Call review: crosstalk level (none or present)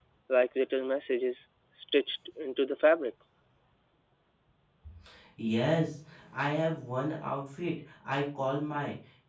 none